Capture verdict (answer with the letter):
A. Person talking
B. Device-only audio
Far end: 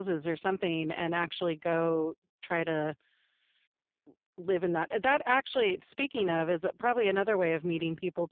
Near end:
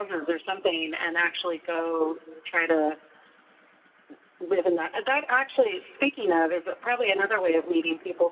B